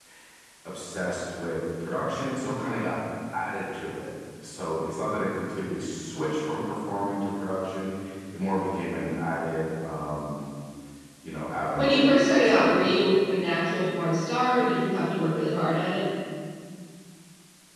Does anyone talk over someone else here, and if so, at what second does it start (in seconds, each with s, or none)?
11.8 s